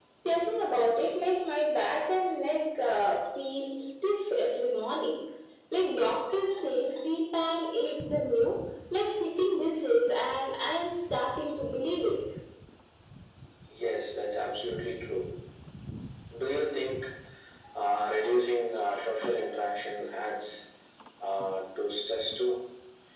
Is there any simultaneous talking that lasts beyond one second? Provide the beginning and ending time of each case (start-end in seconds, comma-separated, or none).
none